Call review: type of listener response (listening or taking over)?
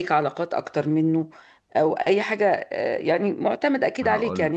listening